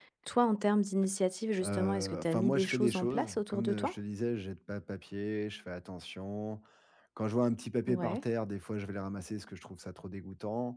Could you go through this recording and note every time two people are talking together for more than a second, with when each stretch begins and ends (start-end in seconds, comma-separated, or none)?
1.6-3.9